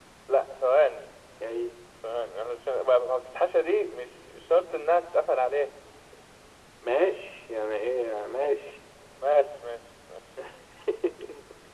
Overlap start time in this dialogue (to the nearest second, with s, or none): none